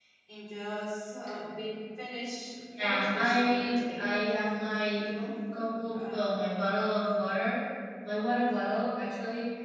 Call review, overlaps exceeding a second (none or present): present